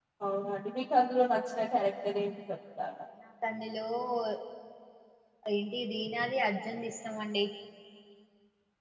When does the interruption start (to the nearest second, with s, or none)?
none